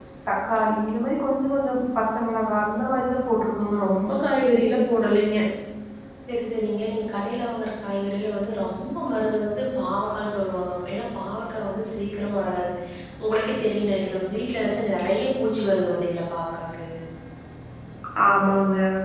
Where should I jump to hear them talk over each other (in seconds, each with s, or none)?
none